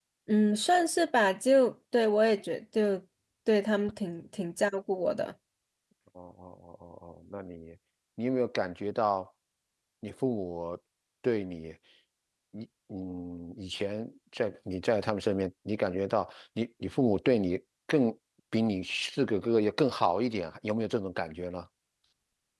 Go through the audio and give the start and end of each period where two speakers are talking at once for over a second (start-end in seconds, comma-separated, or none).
none